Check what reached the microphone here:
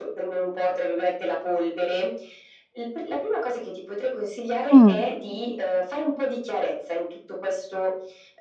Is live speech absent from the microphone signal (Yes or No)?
No